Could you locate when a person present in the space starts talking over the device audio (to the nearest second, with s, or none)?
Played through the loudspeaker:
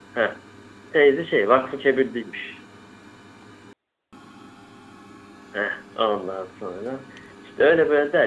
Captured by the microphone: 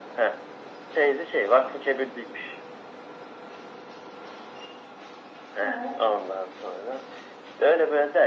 6 s